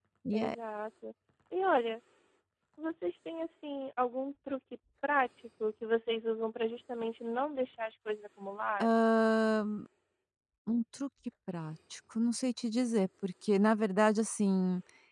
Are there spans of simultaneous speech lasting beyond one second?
No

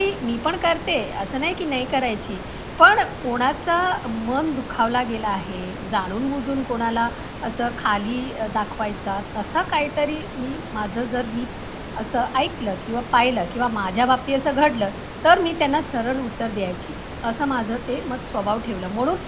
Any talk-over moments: No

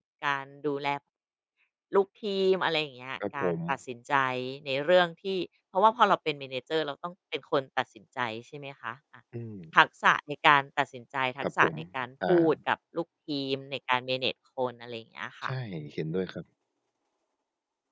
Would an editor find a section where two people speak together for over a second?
No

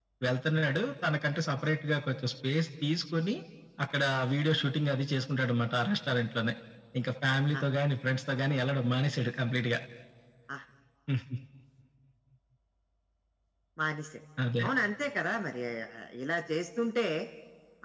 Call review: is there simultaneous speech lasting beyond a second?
No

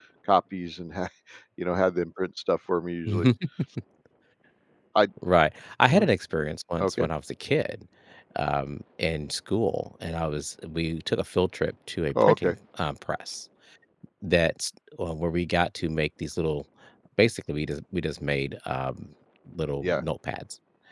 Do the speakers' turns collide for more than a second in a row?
No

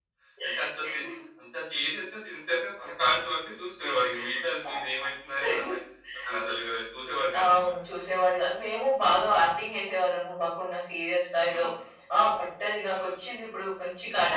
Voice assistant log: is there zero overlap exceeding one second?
Yes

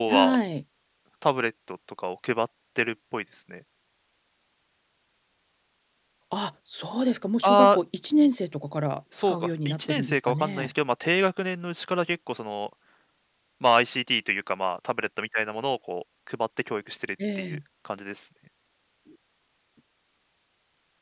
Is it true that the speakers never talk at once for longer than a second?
No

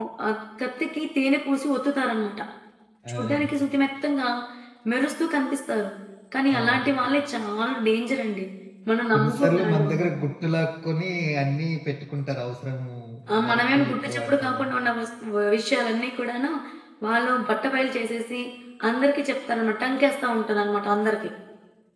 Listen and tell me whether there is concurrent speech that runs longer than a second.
Yes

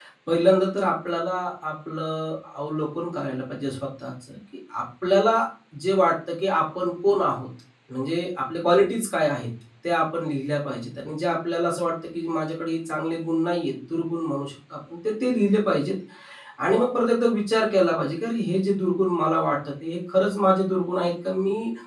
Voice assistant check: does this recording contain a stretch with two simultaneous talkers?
No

